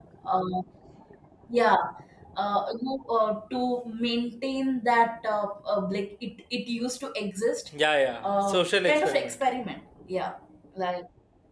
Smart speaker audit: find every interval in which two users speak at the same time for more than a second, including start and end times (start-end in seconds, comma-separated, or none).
8.2-9.4